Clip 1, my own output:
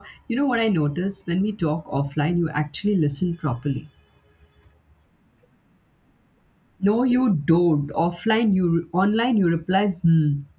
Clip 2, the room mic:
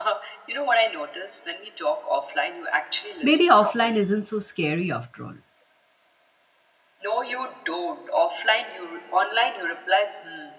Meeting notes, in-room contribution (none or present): present